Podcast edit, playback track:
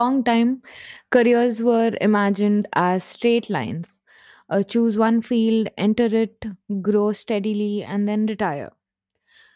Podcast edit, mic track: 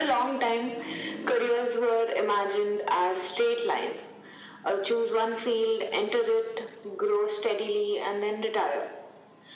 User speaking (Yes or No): No